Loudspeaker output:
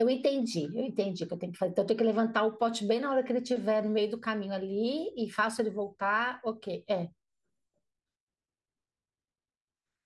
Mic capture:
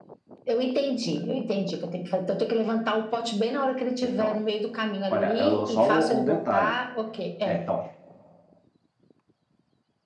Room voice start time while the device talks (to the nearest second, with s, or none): 4 s